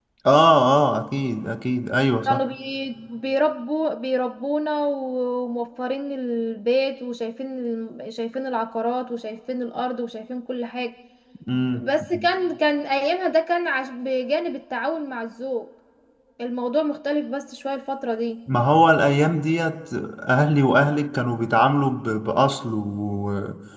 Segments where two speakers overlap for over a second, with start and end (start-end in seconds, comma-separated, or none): none